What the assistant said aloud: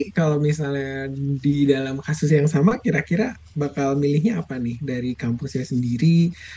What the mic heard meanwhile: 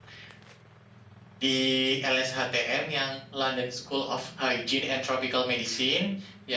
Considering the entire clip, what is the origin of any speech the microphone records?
user only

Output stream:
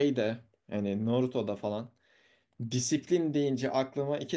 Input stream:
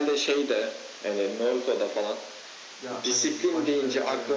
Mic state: both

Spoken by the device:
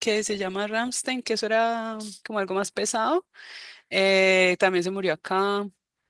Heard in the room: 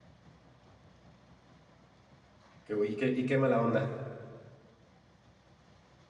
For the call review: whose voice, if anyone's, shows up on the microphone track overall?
user only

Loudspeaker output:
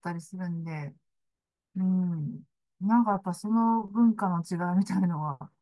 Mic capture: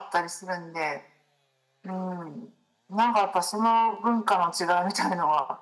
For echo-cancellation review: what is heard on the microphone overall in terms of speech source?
echo only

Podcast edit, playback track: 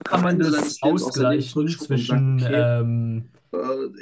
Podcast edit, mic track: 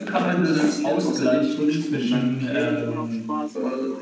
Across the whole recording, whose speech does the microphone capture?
both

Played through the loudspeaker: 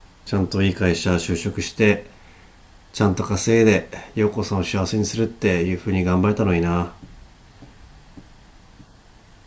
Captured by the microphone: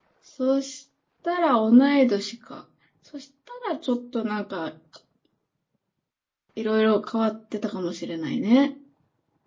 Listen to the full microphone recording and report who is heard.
user only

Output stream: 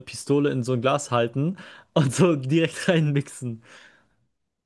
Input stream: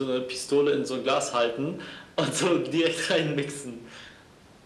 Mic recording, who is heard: echo only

